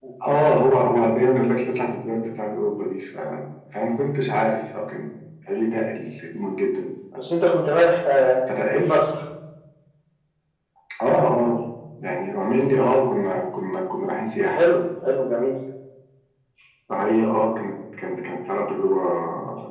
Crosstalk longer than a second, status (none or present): none